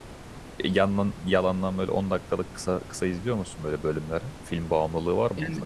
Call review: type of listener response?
taking over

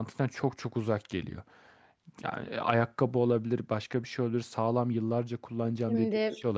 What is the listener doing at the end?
listening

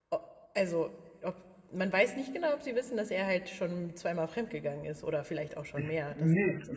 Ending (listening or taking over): taking over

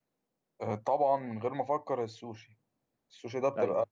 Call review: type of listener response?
listening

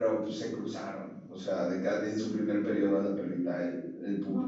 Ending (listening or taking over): listening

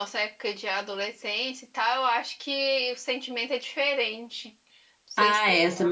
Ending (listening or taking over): taking over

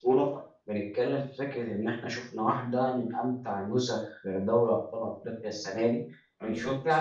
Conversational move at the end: listening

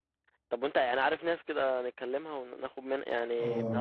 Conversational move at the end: taking over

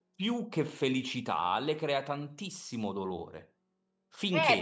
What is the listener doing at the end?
taking over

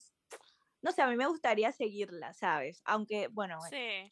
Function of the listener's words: listening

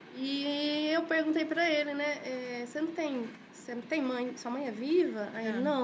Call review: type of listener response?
listening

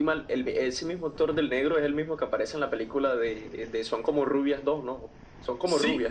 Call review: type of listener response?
taking over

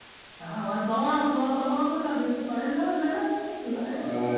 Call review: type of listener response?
taking over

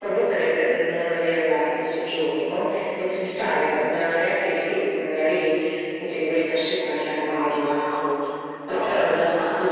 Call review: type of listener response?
listening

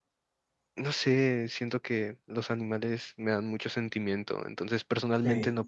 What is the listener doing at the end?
listening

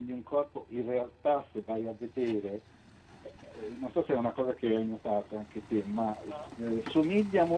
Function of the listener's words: listening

